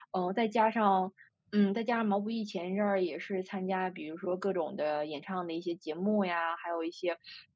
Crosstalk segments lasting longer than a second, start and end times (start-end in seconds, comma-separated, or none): none